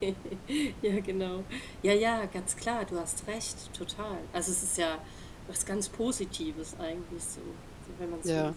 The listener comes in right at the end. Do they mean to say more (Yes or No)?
Yes